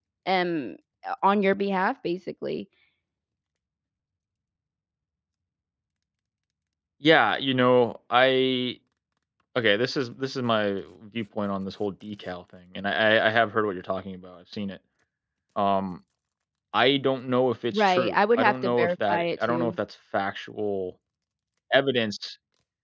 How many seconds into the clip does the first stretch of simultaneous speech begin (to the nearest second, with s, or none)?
18 s